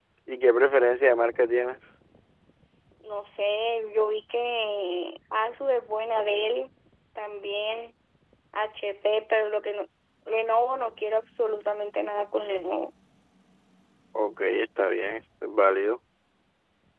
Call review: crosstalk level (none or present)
none